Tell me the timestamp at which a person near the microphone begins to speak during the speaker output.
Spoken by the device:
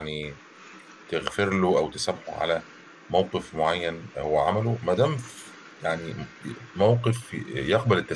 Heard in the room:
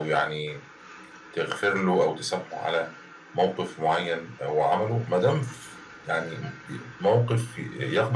none

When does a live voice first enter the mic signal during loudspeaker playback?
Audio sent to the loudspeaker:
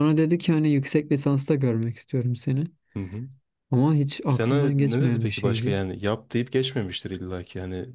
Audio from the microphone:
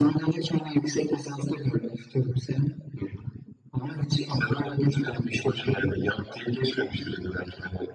none

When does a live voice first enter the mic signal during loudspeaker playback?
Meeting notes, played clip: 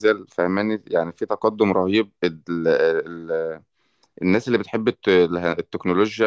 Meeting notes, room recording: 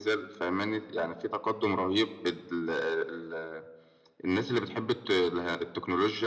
none

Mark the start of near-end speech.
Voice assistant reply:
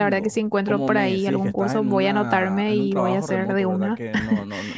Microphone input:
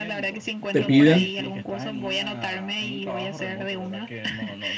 0.7 s

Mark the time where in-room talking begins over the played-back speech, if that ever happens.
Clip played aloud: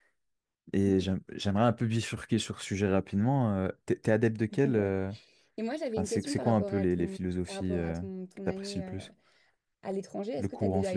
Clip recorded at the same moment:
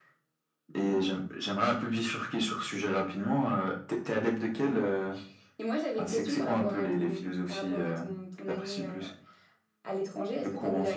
none

